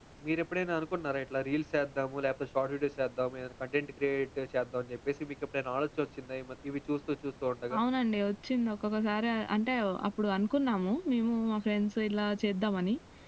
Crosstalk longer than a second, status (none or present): none